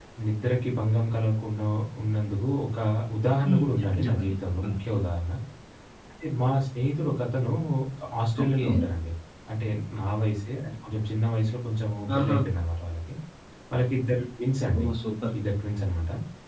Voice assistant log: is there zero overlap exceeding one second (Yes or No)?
No